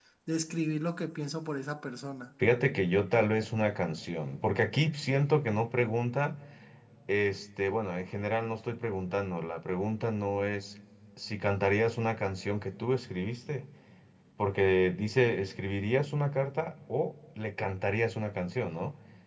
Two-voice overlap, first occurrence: none

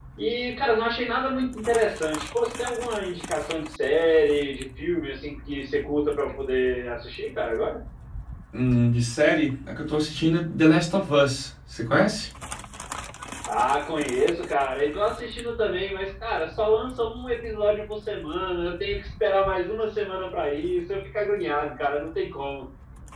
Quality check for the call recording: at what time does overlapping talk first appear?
none

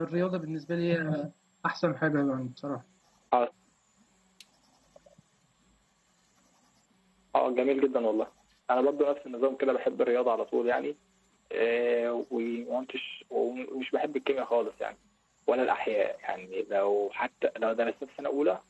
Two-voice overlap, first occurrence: none

